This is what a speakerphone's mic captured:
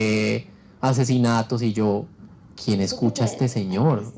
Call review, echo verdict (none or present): present